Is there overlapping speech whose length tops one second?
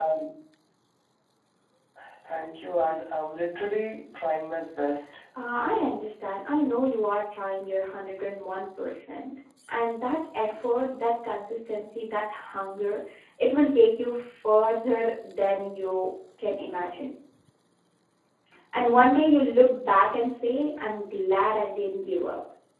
No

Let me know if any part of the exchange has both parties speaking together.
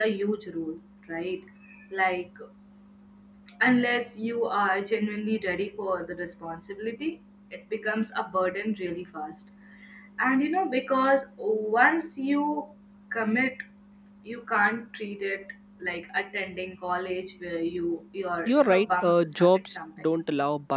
Yes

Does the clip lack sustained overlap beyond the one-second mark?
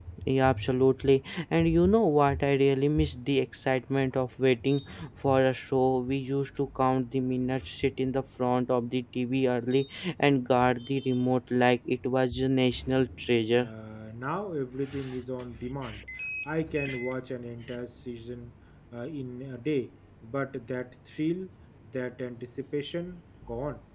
Yes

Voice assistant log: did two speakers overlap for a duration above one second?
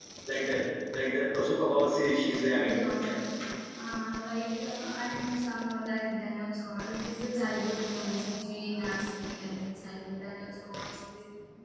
No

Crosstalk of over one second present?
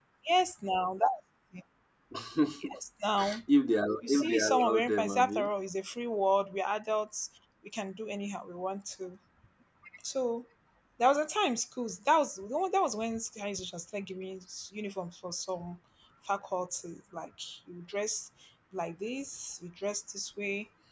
Yes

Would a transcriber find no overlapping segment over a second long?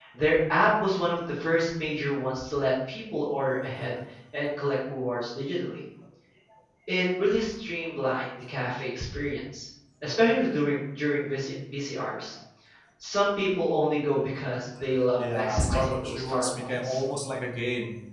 No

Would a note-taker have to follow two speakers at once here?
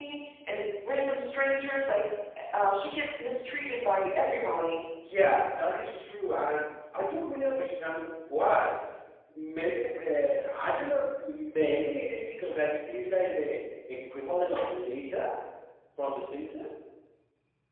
No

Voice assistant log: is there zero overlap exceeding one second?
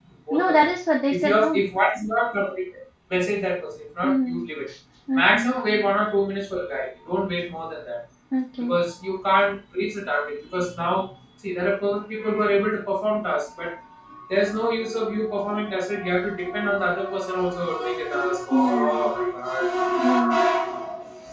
Yes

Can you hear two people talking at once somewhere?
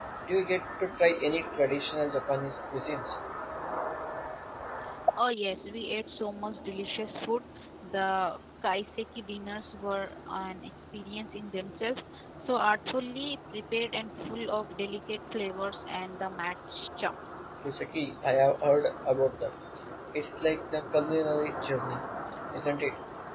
No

